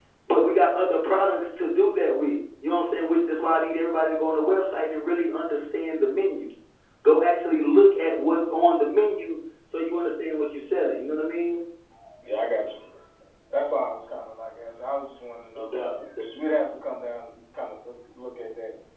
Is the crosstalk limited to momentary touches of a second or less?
Yes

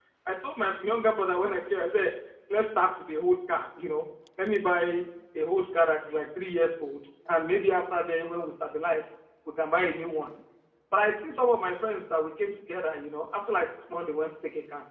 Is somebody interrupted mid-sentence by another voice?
No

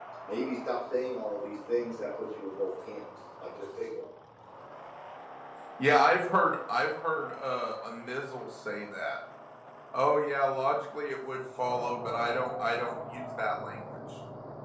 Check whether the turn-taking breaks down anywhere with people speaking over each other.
No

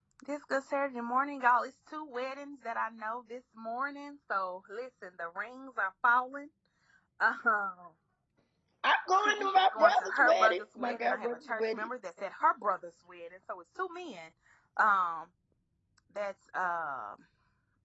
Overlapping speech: Yes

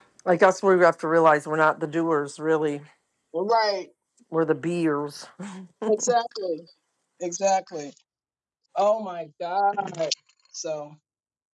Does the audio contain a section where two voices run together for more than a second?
No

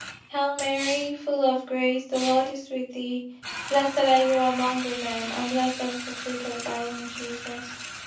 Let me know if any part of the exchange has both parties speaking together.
No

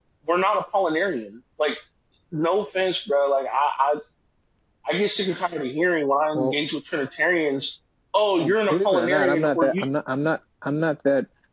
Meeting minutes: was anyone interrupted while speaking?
Yes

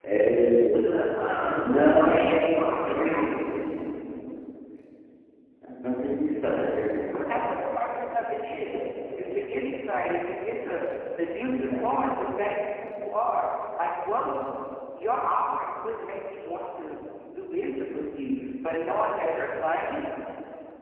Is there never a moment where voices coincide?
No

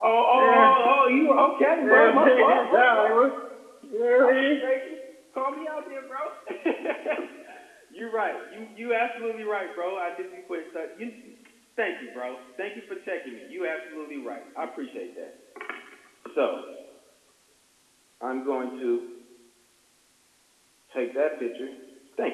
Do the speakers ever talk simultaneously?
Yes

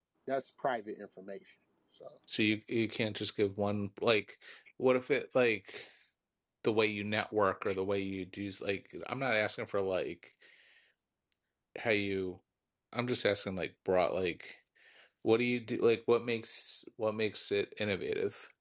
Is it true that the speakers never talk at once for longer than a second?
Yes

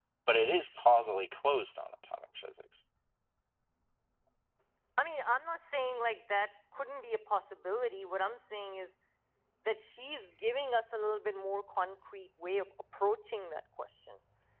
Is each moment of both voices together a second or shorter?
Yes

